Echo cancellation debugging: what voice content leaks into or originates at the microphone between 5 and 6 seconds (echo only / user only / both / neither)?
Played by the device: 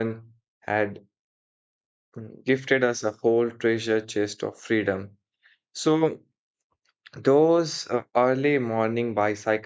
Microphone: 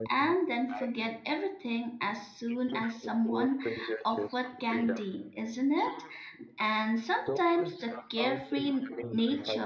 both